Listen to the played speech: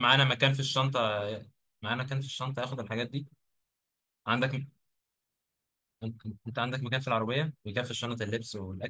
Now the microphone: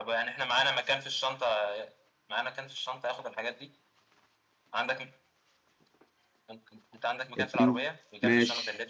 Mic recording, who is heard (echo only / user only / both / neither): both